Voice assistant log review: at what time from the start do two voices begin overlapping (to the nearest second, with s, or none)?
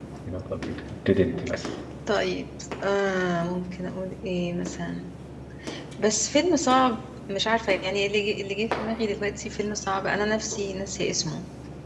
none